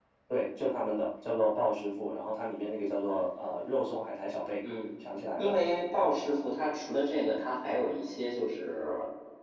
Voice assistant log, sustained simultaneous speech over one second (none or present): none